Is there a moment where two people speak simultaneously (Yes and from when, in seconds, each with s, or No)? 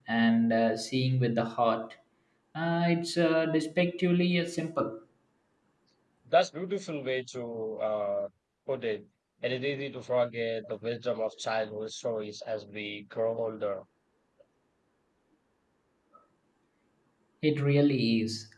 No